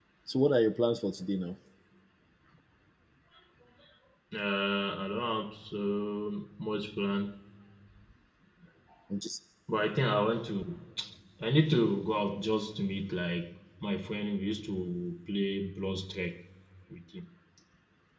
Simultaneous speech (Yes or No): No